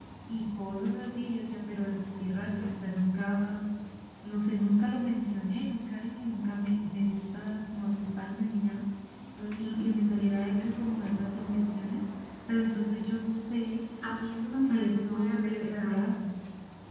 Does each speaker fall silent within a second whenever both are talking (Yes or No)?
No